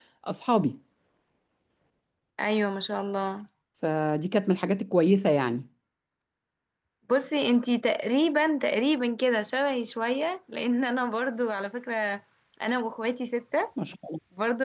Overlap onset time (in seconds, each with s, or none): none